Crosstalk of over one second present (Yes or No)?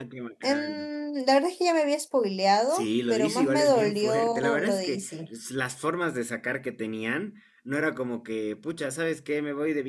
Yes